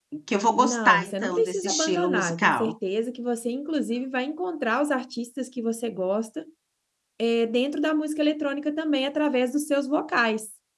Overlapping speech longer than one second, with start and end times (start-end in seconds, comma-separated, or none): 0.6-2.7